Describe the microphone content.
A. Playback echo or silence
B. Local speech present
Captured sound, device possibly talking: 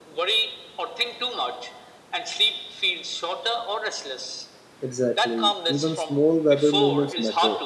B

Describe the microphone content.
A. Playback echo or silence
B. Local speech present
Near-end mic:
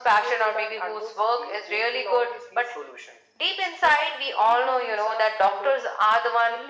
A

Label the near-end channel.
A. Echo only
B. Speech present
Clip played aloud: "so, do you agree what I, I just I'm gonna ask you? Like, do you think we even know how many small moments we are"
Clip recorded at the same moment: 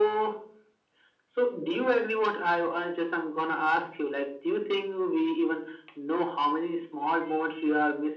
A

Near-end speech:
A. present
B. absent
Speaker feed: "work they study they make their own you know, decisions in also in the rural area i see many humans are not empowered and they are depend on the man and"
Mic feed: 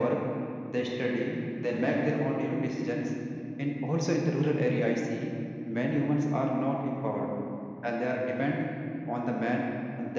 B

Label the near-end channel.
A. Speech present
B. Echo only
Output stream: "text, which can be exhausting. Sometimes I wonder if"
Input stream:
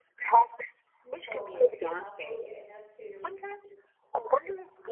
A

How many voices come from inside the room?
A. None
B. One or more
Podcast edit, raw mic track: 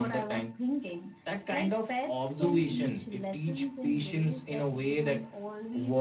A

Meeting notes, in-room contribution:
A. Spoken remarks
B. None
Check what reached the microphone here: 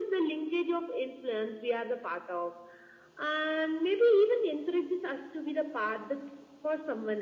B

